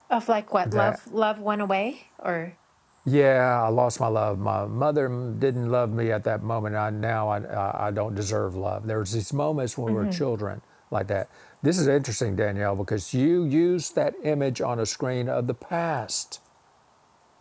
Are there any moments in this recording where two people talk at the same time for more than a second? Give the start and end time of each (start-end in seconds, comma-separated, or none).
none